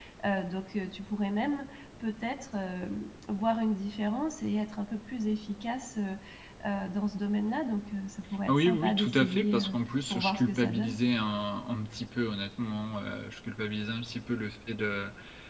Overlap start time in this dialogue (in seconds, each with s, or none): 8.5 s